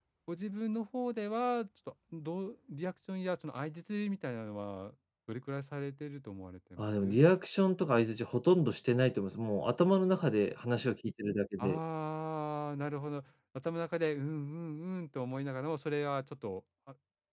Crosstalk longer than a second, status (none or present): none